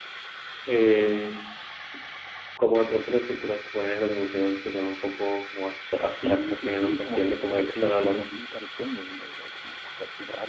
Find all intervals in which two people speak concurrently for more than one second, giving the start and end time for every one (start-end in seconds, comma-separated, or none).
6.1-8.3